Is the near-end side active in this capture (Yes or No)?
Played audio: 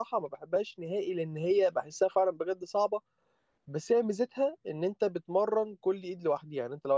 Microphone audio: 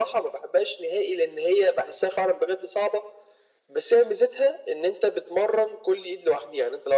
No